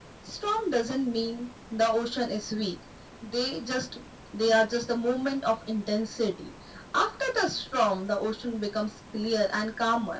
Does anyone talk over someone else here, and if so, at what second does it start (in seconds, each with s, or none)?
none